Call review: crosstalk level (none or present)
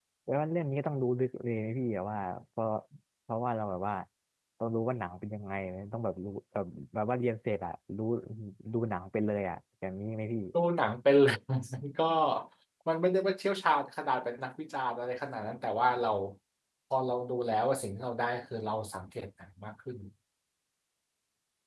none